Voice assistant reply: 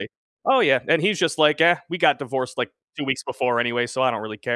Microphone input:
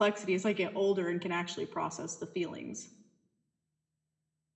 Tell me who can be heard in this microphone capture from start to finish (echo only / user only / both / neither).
user only